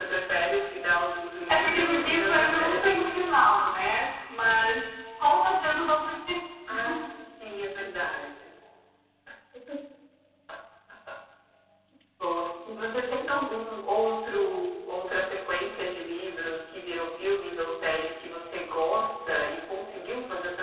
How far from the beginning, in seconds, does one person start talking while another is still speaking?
1.5 s

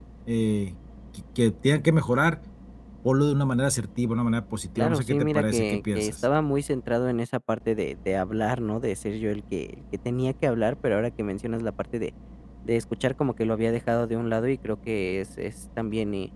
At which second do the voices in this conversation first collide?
4.8 s

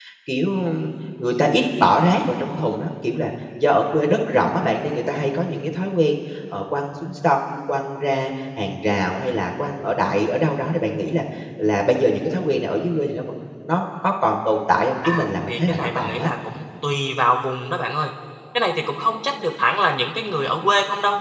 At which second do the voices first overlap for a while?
15.0 s

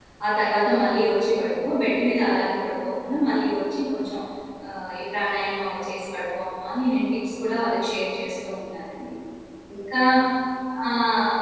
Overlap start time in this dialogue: none

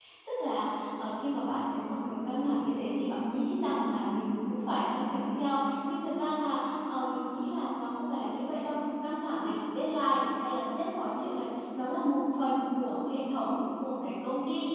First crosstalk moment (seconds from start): none

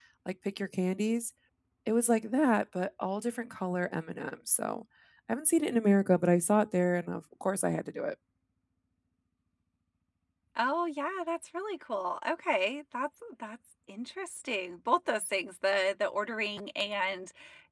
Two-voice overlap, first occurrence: none

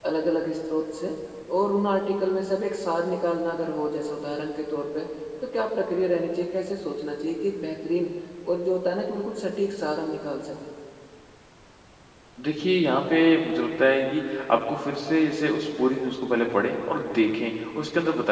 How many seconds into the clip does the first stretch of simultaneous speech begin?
none

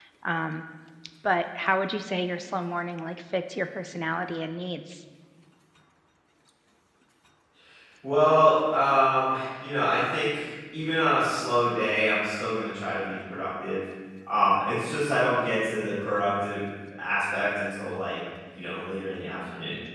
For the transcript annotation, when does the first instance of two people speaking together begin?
none

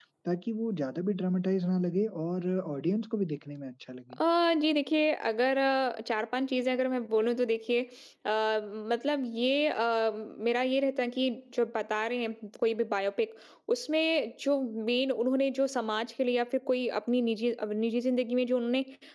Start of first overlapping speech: none

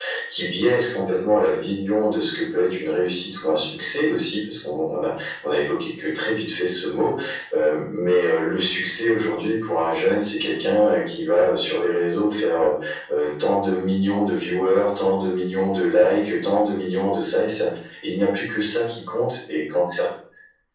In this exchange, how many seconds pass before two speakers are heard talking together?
none

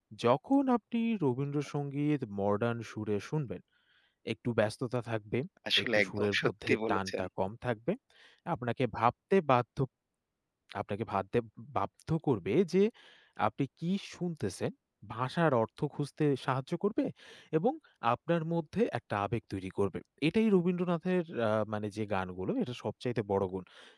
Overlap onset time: 5.8 s

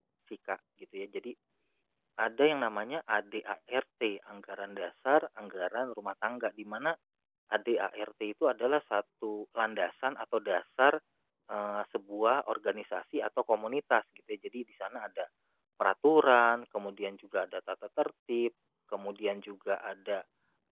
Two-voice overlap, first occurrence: none

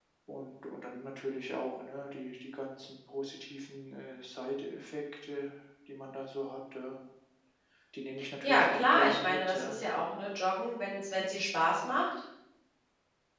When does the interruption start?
8.4 s

